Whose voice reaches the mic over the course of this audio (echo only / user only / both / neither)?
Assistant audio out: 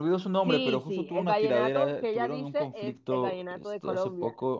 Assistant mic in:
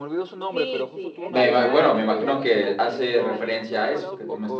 both